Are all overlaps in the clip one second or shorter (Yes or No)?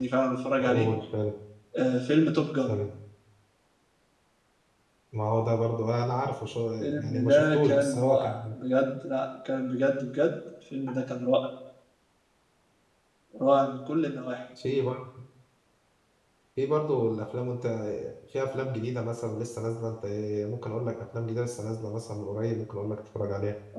No